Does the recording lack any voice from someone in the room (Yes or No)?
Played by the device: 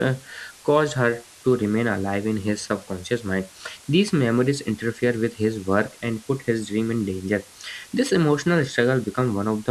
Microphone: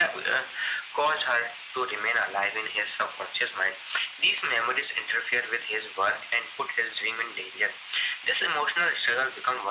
Yes